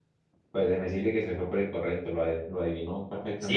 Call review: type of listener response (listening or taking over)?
taking over